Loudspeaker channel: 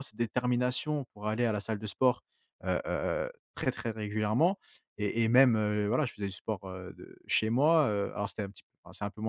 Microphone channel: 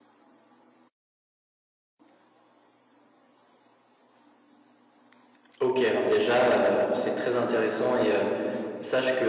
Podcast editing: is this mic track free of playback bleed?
Yes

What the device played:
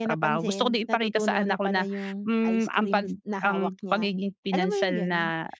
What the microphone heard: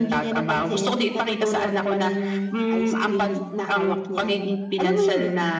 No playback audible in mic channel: No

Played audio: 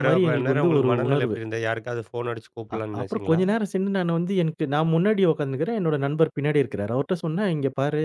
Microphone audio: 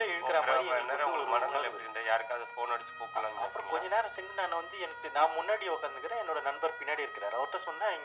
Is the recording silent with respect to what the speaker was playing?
No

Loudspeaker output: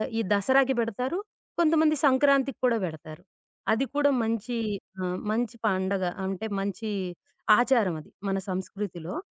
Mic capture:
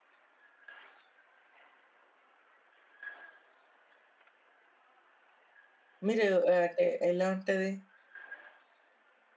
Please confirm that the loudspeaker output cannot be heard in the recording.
Yes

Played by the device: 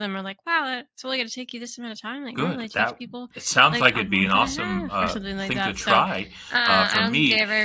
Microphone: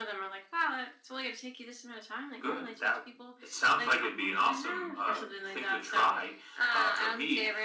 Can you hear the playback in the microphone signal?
Yes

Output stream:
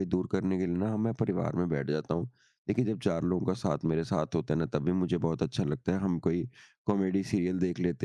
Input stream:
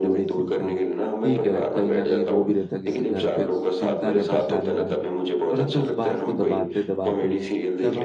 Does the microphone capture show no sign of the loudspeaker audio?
No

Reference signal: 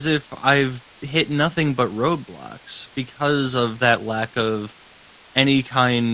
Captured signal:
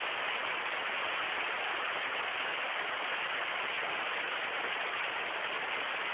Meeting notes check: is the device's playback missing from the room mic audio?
Yes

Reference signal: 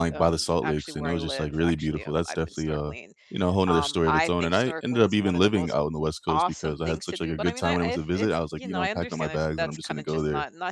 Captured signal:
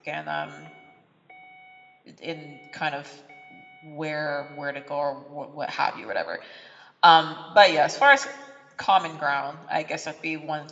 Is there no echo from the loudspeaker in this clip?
Yes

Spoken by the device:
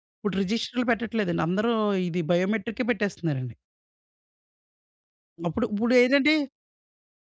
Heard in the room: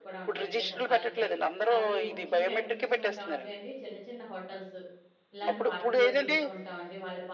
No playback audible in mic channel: No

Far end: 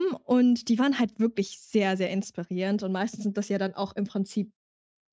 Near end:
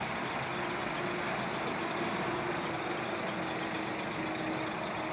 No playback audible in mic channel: Yes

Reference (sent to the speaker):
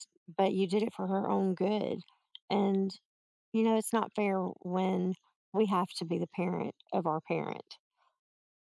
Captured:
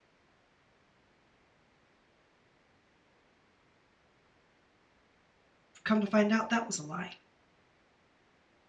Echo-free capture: Yes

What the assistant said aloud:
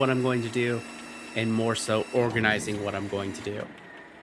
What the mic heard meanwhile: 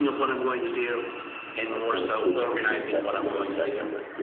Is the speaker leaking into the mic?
Yes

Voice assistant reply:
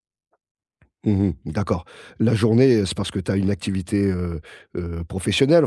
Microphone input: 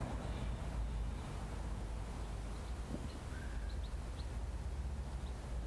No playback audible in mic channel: Yes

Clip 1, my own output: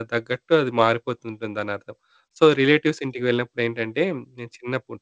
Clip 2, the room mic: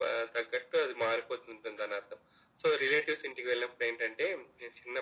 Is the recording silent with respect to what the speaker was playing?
No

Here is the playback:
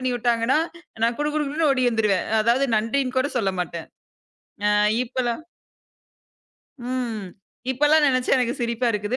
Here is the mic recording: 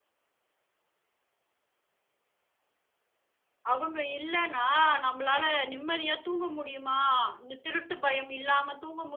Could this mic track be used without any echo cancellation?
Yes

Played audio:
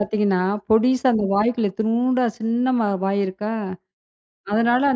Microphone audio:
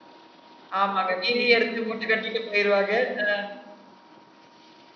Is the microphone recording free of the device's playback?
Yes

